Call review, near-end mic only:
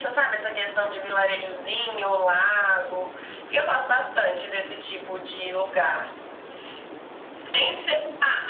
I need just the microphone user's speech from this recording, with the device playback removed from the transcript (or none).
none